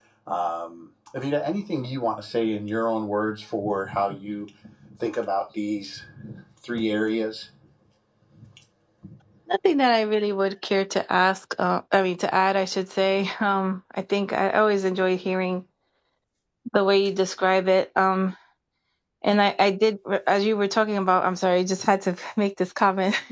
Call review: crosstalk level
none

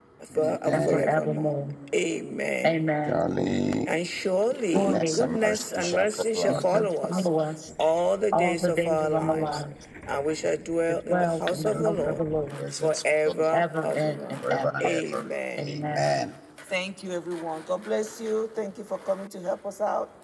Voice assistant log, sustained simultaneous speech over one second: present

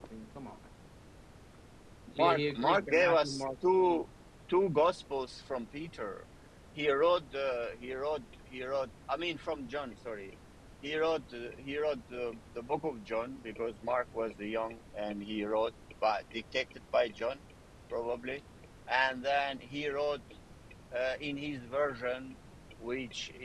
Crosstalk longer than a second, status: present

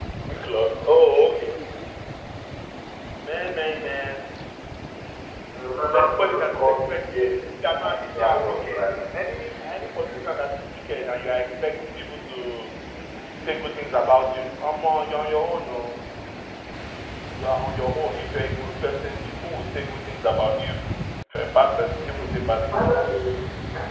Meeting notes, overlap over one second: present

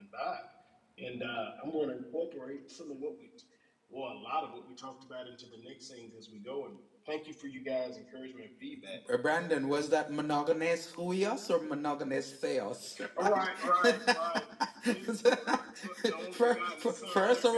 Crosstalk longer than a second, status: present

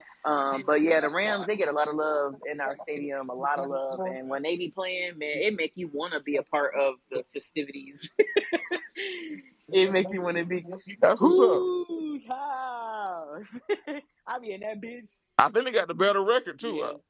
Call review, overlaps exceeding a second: none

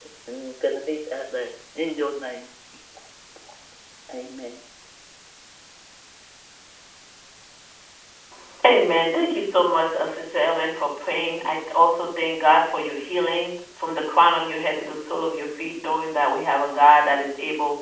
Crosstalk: none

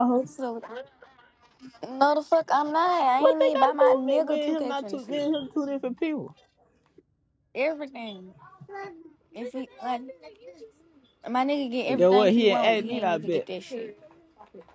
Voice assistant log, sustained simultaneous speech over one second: present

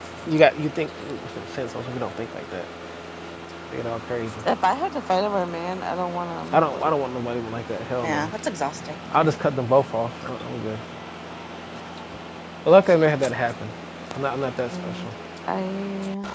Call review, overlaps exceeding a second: none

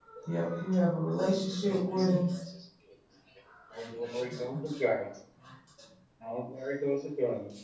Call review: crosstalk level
none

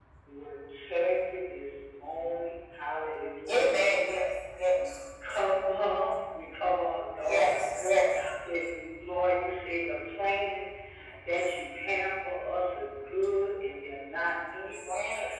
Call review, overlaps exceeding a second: none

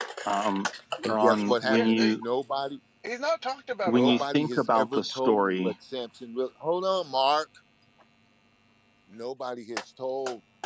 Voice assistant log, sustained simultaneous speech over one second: present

